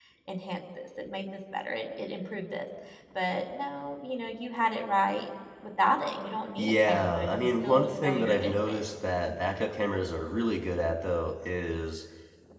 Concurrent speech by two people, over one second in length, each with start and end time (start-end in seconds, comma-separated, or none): 6.6-8.9